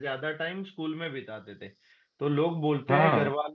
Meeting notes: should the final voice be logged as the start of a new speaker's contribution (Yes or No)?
No